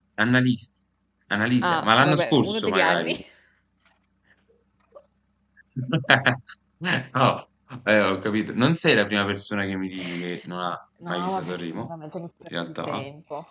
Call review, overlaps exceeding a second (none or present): present